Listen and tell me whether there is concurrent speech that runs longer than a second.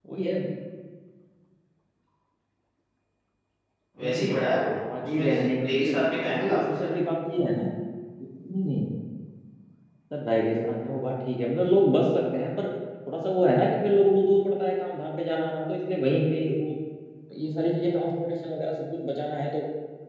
Yes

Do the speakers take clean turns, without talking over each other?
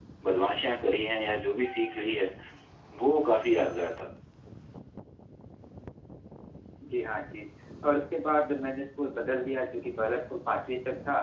Yes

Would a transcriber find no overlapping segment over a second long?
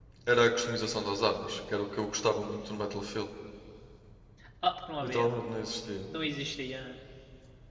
Yes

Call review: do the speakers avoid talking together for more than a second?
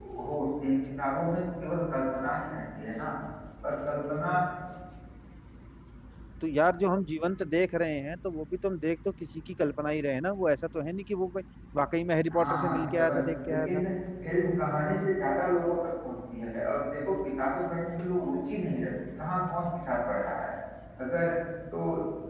No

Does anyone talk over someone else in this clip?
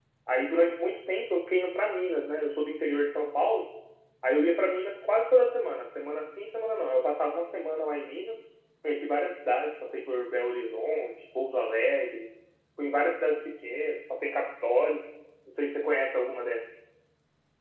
No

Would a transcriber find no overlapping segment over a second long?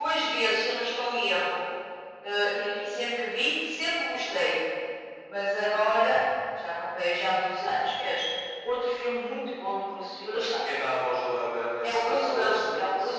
No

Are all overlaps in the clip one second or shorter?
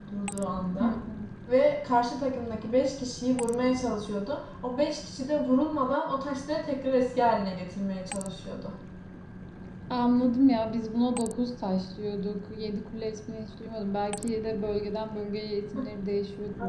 Yes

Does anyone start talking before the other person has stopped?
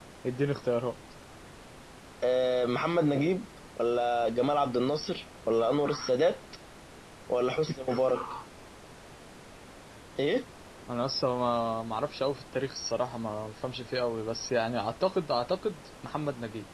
No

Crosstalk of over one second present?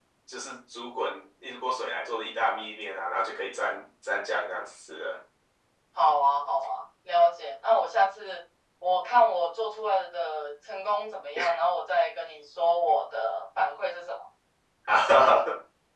No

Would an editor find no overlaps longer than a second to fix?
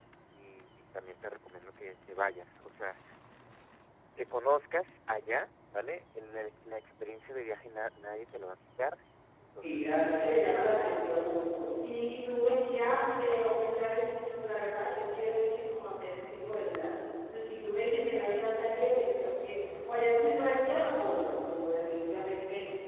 No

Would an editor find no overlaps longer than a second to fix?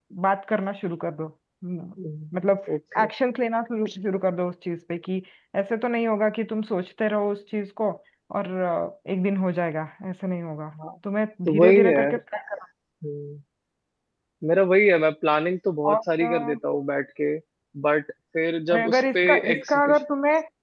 No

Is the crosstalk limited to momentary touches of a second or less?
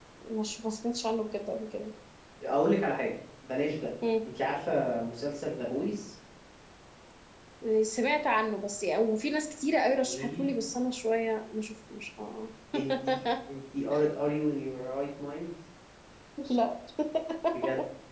Yes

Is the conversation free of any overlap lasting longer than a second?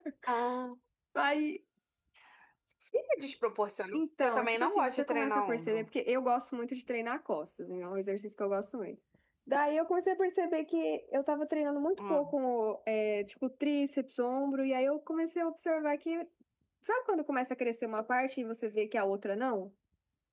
No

